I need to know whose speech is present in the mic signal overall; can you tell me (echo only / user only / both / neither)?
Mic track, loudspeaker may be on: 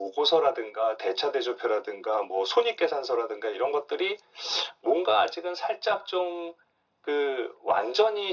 echo only